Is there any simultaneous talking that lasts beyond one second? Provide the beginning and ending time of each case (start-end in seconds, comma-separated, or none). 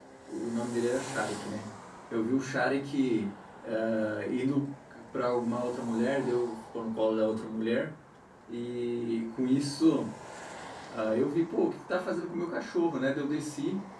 none